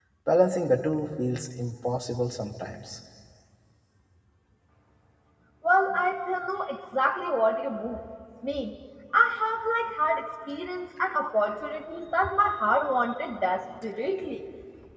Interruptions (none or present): none